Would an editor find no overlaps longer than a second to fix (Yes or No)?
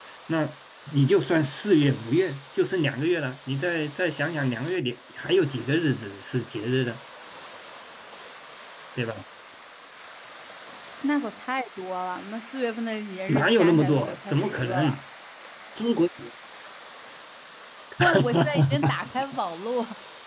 No